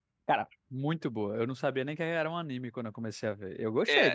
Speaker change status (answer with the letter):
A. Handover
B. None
A